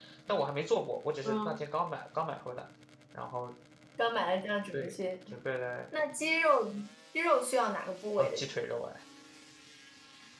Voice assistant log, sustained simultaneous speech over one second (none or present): none